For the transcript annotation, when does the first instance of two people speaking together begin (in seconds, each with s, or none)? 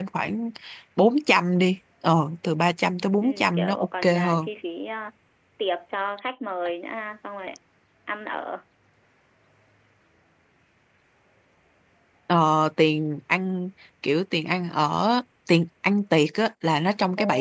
3.2 s